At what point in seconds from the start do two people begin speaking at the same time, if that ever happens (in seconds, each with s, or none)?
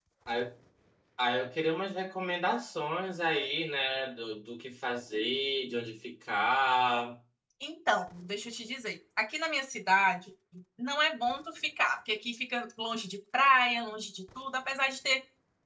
none